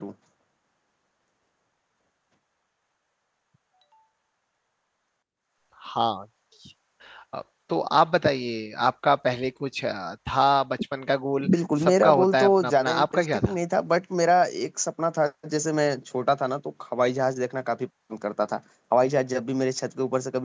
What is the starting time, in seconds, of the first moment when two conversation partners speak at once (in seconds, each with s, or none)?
11.8 s